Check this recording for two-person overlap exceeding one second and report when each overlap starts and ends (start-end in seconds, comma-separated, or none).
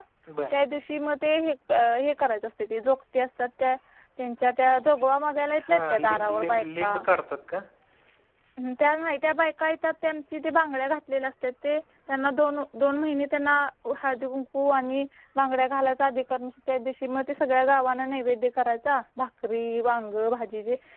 5.7-7.0